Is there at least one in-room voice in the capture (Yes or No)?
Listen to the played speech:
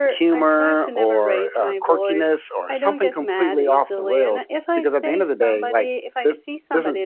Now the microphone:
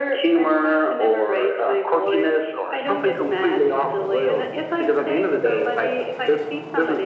No